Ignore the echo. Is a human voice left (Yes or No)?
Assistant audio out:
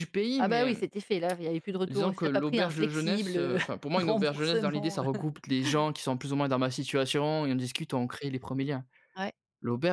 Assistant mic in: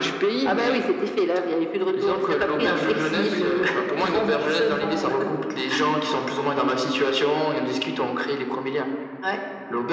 No